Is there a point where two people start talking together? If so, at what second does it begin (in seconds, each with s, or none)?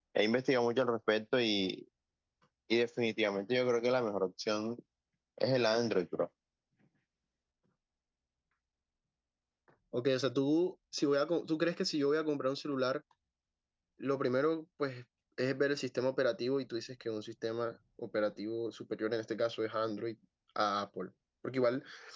none